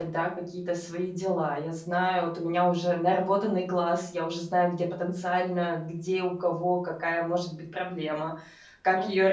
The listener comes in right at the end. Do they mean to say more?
Yes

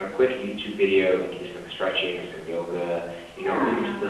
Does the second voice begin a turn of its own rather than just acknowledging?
No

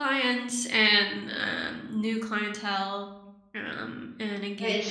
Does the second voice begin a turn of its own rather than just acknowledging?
Yes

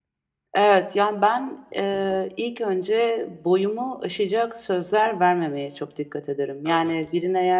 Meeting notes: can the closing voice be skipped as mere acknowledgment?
Yes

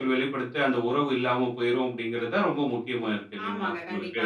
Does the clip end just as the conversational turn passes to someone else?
Yes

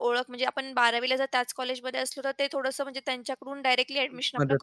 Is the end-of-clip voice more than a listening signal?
Yes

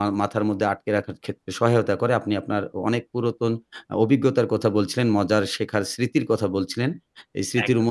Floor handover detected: No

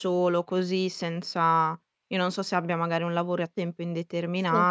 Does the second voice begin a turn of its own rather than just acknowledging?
No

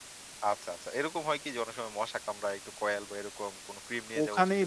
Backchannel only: No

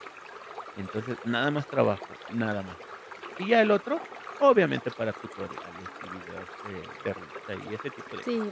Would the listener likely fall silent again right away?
No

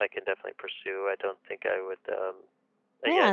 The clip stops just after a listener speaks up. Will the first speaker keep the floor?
No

